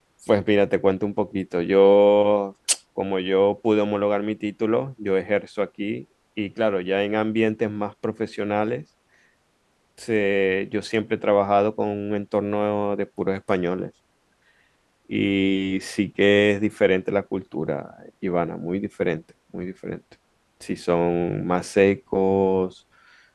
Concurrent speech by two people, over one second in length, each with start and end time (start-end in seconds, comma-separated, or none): none